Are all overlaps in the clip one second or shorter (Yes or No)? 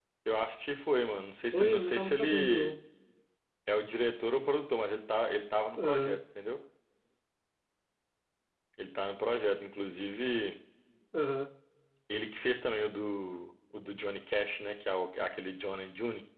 No